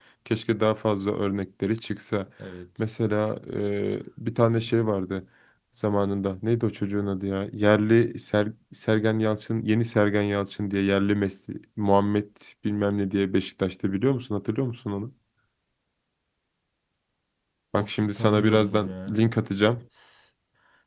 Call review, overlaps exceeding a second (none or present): present